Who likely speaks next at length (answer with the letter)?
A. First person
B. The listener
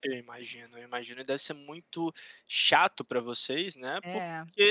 A